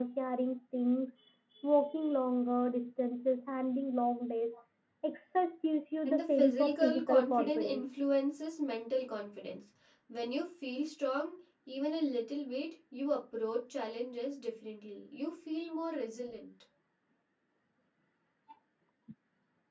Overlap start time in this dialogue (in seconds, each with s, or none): 6.0 s